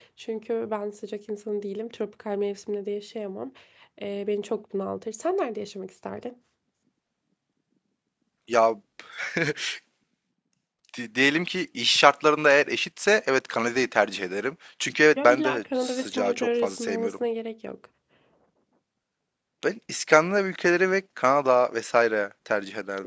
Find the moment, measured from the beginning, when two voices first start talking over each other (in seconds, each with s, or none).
15.2 s